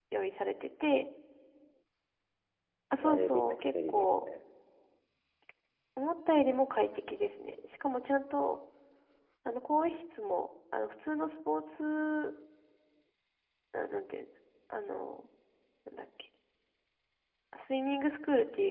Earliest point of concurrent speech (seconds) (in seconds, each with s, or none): 2.9 s